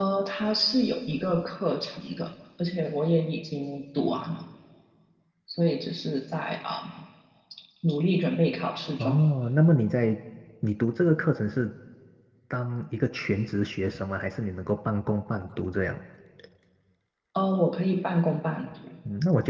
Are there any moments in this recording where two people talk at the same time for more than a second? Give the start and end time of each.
none

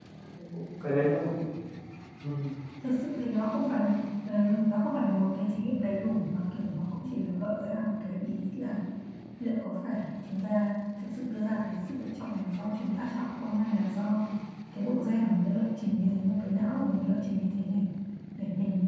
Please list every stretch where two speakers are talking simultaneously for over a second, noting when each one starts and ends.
none

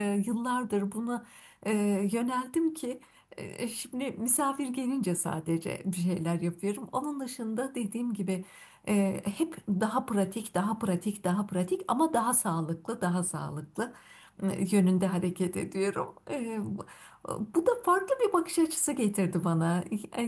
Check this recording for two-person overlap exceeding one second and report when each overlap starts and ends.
none

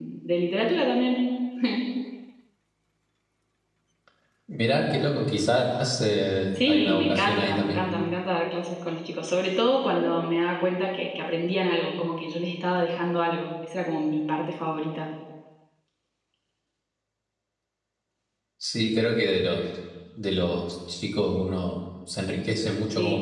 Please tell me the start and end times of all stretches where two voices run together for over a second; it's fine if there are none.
6.5-7.8

